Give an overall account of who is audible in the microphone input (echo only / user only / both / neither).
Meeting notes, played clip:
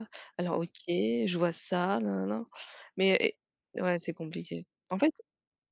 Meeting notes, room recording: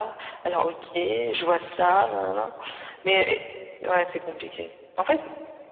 echo only